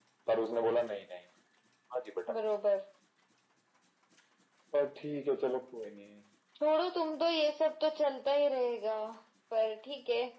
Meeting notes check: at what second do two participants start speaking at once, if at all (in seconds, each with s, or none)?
none